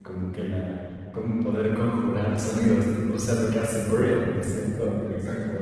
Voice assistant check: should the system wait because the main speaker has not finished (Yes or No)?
Yes